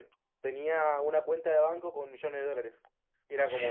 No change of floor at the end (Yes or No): Yes